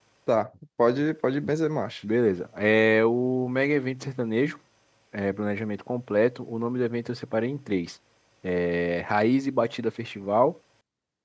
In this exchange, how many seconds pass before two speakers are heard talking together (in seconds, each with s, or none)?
none